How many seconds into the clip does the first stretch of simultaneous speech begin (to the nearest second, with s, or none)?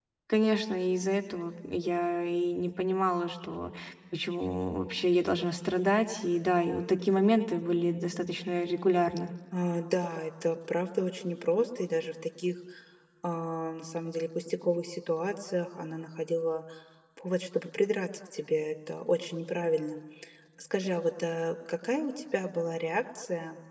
none